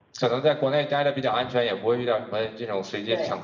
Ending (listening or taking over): listening